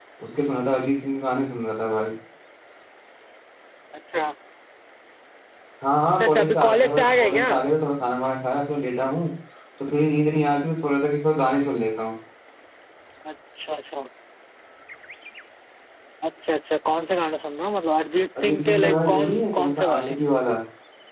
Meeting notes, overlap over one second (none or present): present